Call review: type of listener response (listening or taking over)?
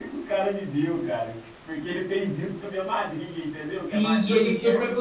taking over